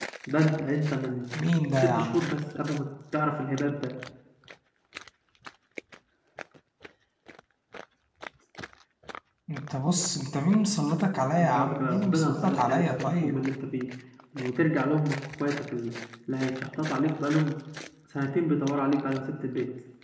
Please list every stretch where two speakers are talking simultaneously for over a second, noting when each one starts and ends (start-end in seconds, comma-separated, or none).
11.4-13.3